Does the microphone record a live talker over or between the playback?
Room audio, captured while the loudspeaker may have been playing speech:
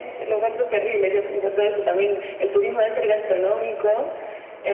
No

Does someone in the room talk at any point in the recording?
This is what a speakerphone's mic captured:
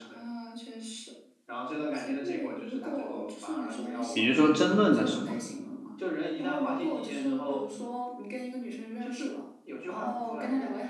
Yes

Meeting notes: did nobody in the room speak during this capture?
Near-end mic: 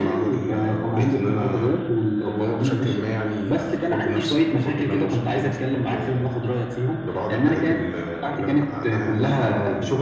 Yes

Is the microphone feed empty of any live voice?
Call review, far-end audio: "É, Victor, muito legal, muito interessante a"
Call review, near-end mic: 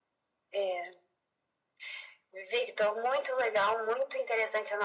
Yes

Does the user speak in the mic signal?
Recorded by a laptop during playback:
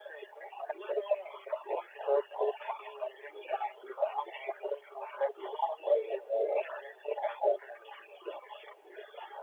No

